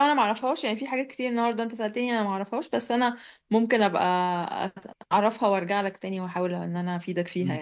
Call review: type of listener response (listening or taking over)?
taking over